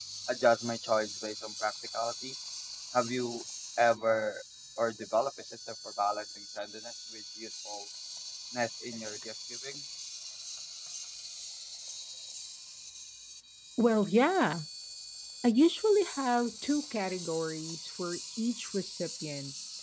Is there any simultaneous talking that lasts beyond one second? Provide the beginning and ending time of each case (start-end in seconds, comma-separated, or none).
none